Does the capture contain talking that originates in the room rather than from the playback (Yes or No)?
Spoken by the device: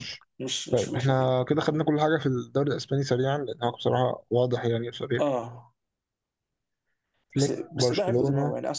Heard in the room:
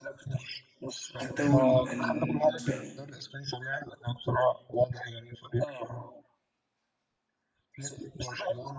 Yes